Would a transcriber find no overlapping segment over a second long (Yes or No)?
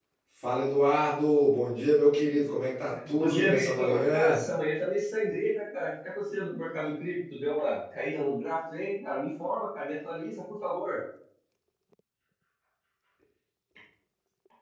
No